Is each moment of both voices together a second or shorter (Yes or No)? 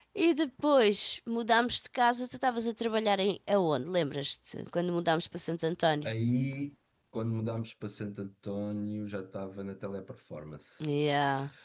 Yes